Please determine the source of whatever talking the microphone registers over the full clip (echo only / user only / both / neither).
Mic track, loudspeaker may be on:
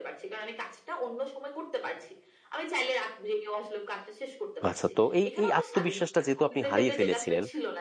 both